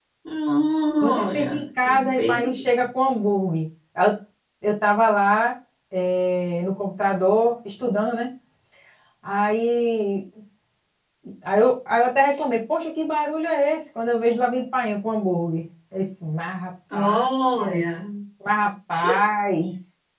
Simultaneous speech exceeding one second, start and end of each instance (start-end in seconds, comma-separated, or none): 1.0-2.6